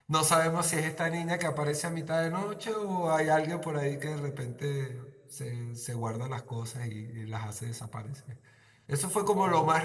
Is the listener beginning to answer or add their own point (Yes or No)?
No